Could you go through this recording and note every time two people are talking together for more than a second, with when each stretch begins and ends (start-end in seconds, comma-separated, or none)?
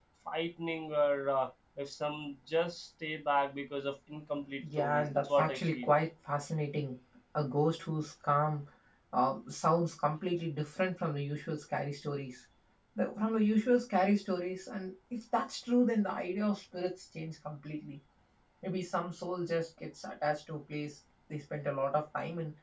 4.6-5.9